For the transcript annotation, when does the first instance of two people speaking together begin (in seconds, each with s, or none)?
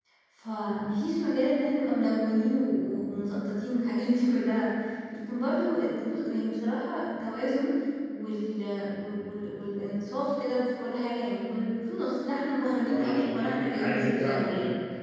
12.9 s